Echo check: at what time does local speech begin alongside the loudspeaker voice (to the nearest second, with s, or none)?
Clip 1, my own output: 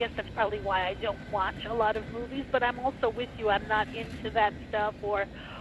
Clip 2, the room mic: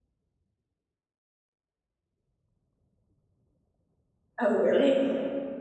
4 s